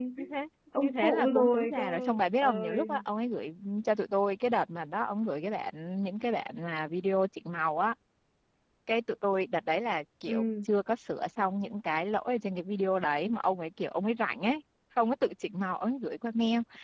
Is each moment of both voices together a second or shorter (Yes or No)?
No